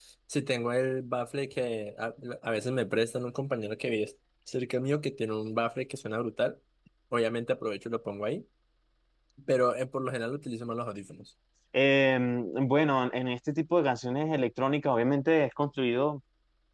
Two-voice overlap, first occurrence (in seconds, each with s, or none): none